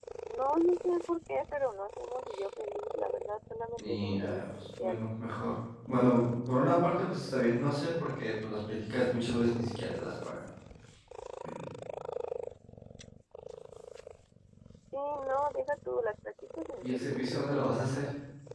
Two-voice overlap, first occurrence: 3.8 s

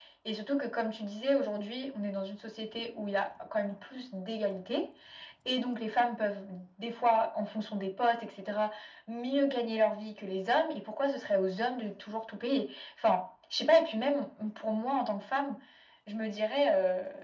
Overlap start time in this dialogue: none

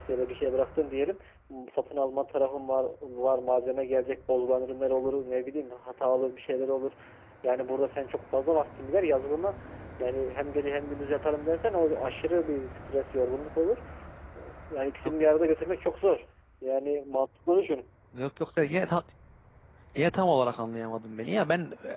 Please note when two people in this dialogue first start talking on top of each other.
none

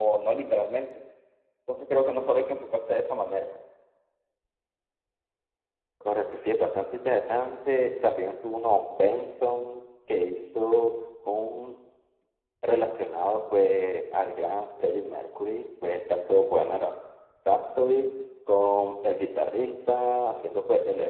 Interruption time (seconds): none

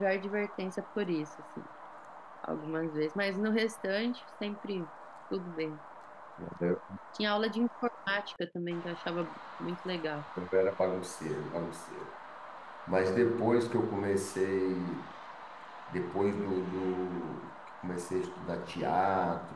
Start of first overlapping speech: none

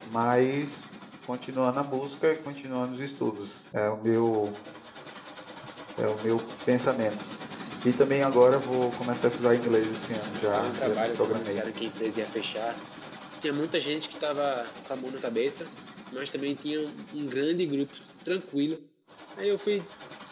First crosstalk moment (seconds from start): 10.3 s

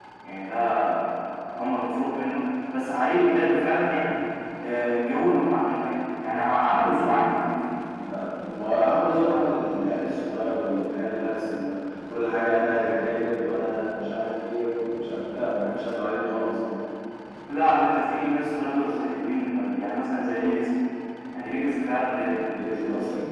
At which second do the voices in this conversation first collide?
none

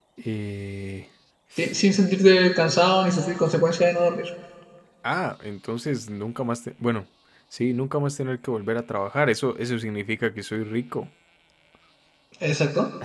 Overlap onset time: none

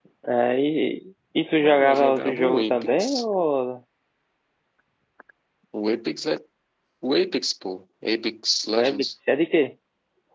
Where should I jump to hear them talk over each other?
1.6 s

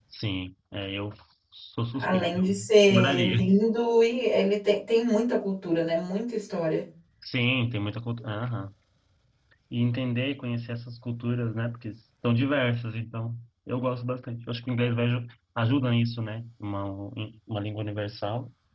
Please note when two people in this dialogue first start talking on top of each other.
2.0 s

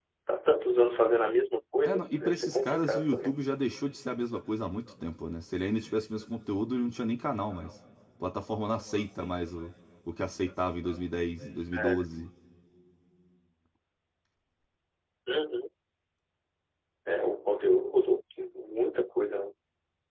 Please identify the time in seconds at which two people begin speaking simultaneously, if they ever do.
1.9 s

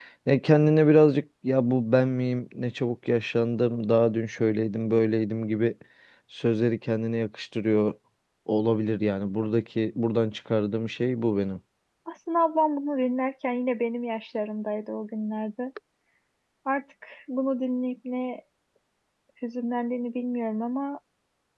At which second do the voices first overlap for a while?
none

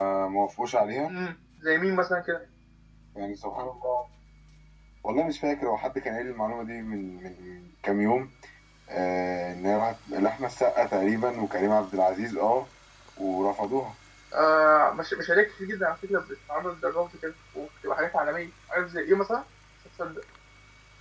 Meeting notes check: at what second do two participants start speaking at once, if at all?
none

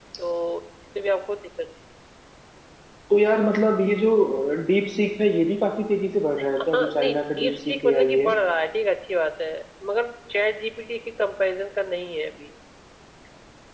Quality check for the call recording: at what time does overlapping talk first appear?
6.6 s

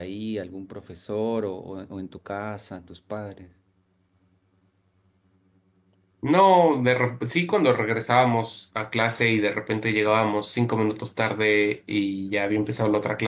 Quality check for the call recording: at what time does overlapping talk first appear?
none

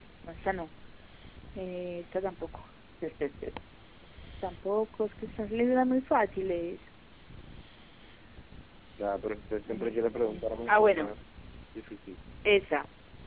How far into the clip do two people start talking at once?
9.7 s

